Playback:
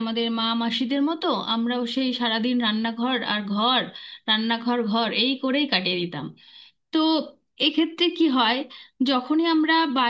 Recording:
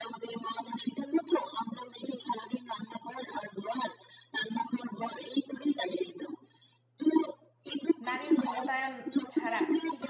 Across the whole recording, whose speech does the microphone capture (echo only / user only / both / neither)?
both